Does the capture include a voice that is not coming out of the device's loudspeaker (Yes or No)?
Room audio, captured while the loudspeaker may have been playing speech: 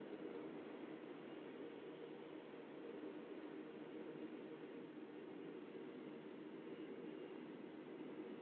No